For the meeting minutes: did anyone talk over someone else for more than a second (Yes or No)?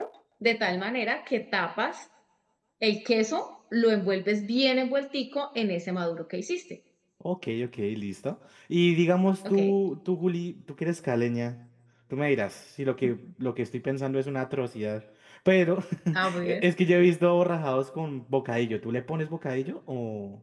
No